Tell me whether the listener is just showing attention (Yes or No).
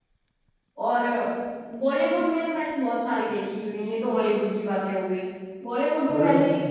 Yes